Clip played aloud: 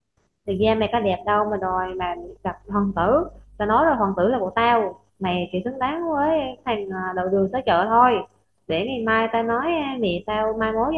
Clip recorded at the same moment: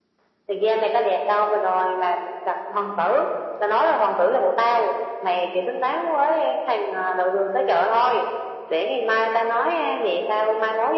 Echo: present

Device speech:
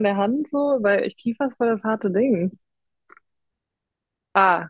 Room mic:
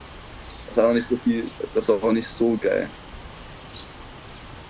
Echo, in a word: none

